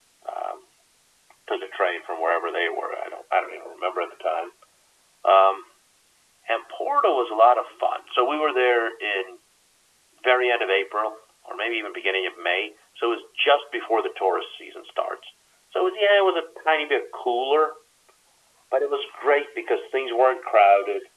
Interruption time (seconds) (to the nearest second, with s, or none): none